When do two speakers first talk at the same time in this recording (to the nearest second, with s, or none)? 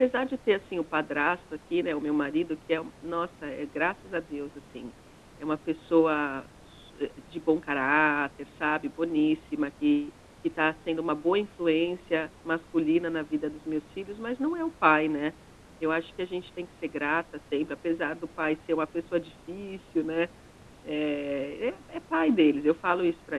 none